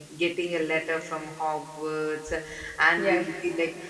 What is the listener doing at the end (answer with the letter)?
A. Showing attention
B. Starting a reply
A